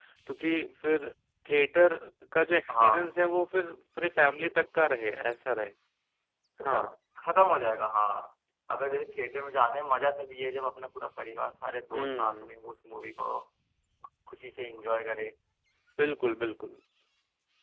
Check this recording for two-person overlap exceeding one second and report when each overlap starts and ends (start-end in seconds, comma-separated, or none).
none